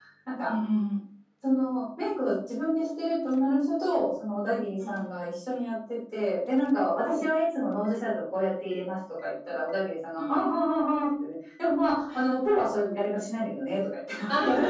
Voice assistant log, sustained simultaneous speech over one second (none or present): none